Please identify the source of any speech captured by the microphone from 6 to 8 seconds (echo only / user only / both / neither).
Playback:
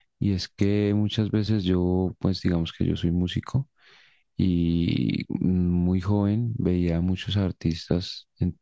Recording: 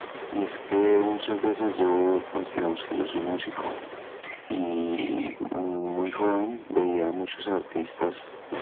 echo only